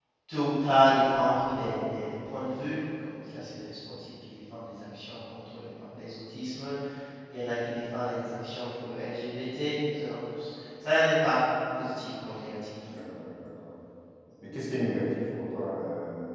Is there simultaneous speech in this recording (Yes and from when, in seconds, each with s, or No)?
No